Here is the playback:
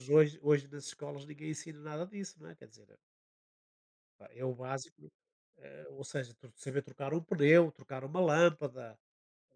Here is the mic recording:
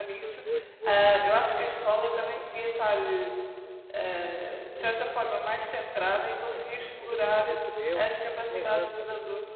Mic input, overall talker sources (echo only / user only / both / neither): both